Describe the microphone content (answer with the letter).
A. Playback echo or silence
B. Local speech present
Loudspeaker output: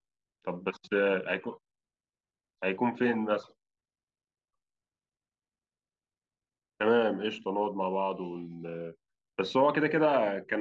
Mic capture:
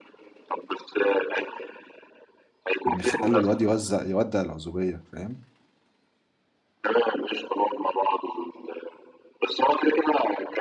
B